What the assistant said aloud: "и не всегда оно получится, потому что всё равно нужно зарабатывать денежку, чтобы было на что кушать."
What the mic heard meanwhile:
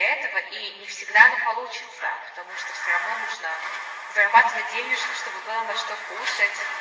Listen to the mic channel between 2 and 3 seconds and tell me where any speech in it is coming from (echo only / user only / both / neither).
echo only